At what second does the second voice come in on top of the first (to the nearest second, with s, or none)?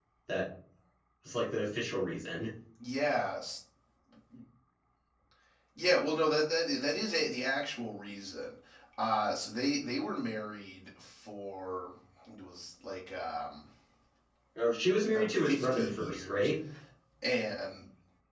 15 s